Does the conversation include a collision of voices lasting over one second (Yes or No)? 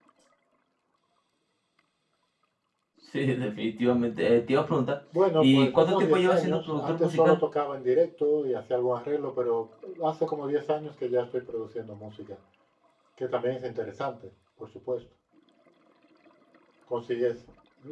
Yes